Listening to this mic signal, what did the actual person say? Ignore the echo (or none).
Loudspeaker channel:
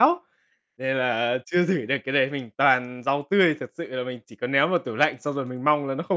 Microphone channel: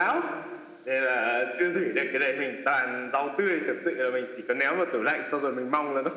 none